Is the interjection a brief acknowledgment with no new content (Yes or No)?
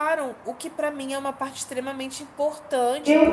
No